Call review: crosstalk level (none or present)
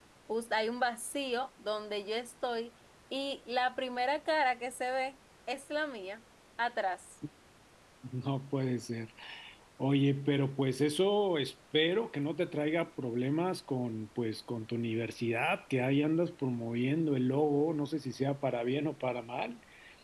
none